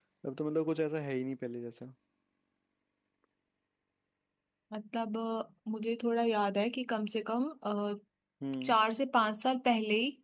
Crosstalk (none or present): none